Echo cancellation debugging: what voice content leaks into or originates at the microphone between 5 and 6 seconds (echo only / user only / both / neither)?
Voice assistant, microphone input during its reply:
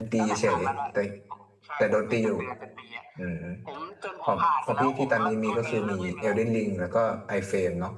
both